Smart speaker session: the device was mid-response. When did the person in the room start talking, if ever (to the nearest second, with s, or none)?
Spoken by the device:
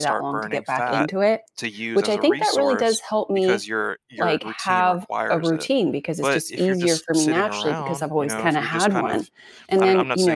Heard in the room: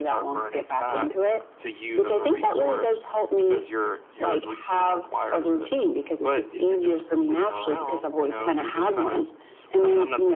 none